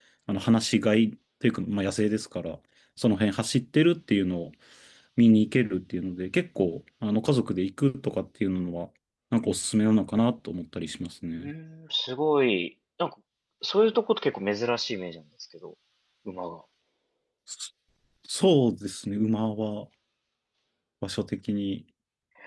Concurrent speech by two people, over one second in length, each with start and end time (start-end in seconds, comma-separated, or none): none